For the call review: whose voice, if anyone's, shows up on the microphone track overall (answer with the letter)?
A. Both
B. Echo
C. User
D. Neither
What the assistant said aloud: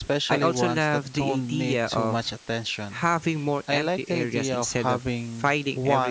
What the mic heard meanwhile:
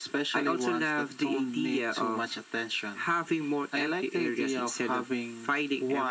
B